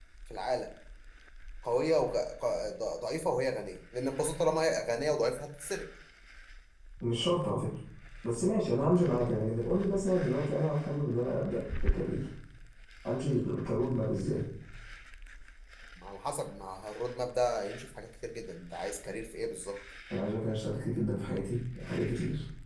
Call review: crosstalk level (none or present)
none